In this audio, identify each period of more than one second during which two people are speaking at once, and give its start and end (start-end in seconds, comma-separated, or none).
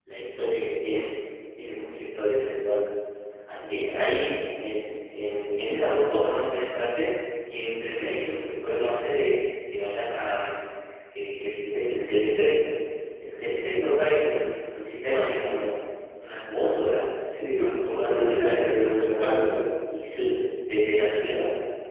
17.5-19.6